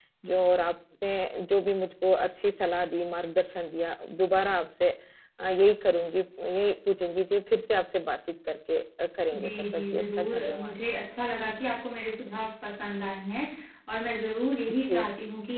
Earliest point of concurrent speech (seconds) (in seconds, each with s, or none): 9.4 s